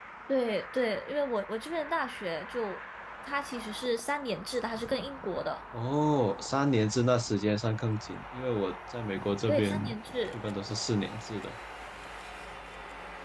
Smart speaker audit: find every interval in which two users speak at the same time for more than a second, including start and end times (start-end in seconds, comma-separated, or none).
none